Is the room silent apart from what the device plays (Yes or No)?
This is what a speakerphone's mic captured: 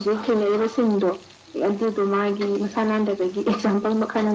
Yes